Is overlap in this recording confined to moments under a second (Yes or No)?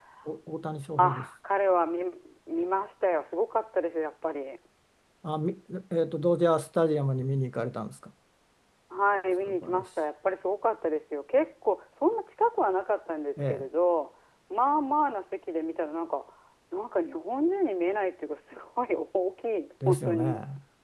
Yes